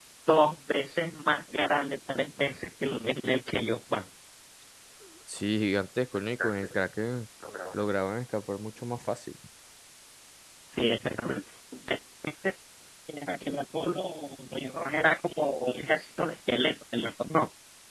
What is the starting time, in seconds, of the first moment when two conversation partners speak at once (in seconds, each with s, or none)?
none